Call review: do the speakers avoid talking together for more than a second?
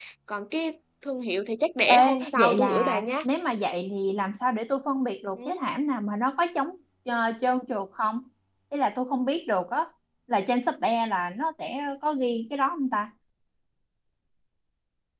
No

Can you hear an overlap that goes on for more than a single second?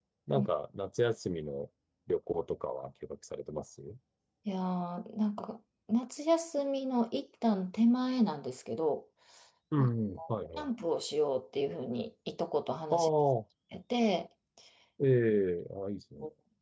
No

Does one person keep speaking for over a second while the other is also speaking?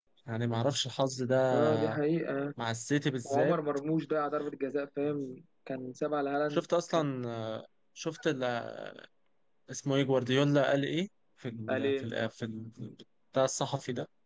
No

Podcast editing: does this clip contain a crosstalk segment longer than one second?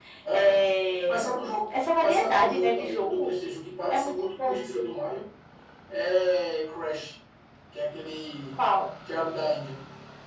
Yes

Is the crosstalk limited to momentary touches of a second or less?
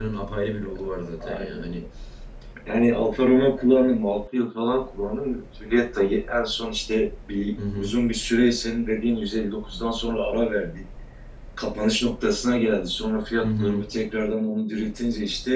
Yes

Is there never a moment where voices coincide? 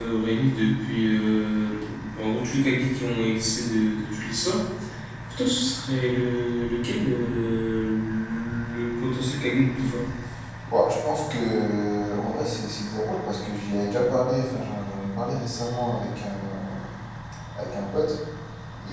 Yes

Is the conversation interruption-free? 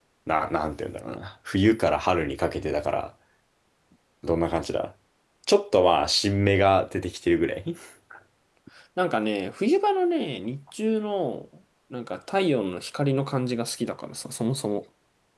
Yes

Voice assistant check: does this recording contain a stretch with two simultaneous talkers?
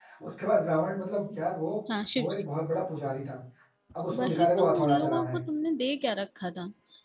Yes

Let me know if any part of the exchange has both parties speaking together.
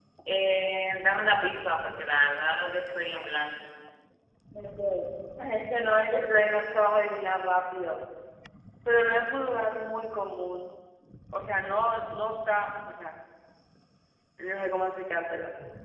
No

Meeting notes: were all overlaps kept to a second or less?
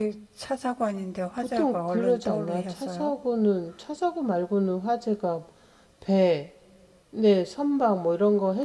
No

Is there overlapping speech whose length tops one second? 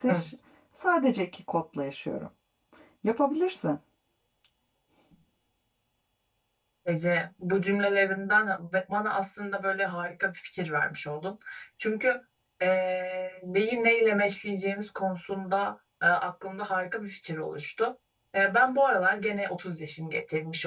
No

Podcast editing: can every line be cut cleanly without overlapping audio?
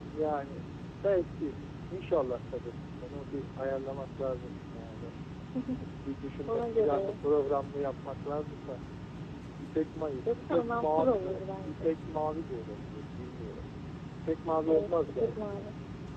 No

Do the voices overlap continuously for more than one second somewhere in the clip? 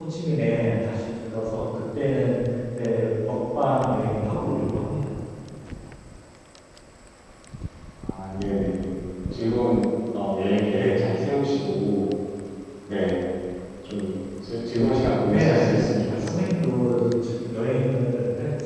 Yes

